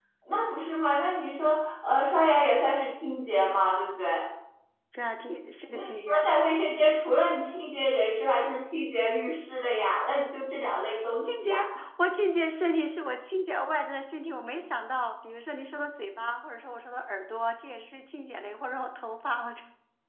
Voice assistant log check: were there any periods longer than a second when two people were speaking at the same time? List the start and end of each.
none

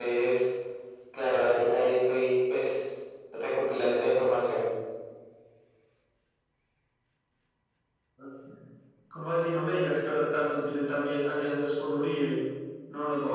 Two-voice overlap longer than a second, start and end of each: none

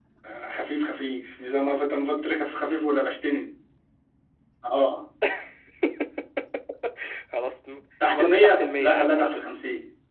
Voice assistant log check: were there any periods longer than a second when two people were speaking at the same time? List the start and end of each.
8.1-9.4

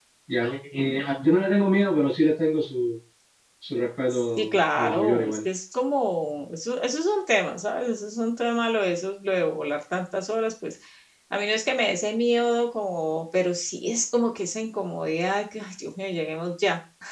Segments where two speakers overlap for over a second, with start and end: 4.1-5.5

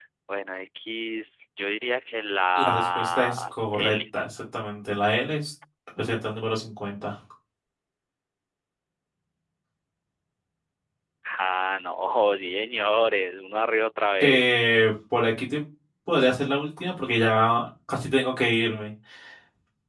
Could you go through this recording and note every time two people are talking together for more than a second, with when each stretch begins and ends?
2.6-4.0

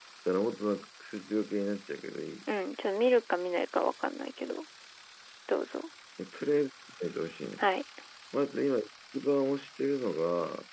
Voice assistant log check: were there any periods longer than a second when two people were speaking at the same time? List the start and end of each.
none

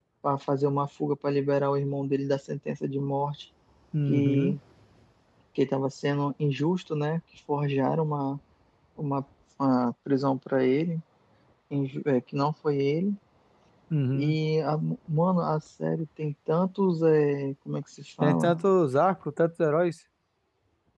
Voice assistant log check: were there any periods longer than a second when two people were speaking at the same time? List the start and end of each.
none

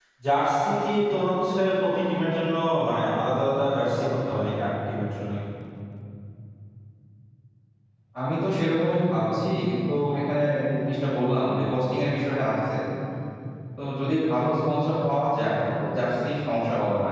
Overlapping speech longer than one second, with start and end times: none

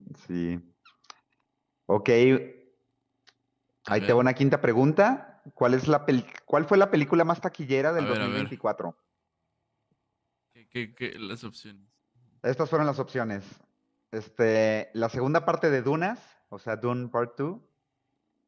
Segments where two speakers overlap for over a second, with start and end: none

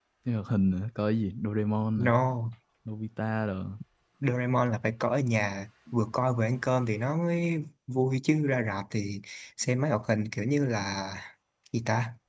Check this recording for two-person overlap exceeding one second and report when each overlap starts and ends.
none

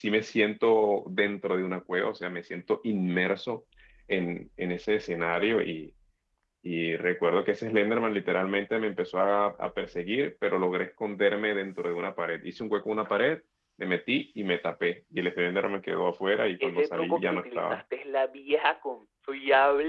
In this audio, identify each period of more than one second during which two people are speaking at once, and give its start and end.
16.6-17.8

